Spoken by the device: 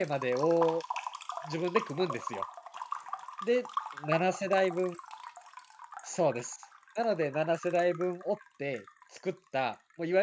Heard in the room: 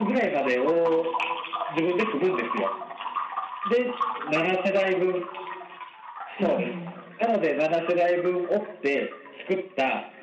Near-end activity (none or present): present